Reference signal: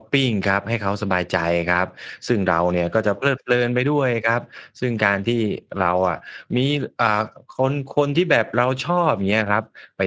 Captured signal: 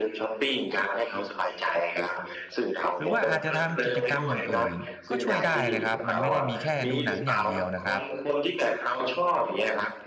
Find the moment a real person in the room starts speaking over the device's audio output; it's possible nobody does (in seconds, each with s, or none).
3.0 s